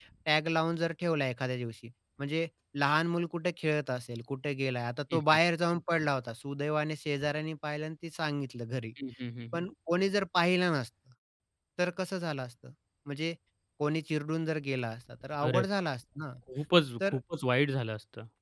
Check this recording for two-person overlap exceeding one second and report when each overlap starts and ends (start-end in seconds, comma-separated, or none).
none